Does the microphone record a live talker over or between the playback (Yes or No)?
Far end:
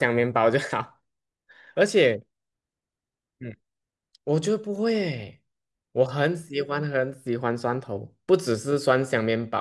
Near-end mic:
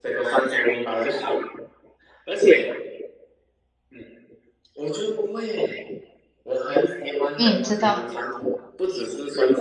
Yes